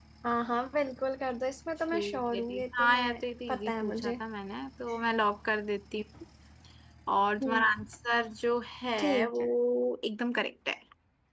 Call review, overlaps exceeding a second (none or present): present